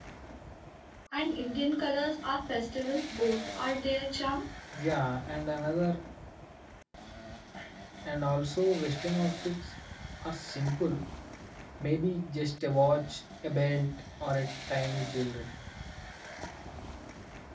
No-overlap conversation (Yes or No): Yes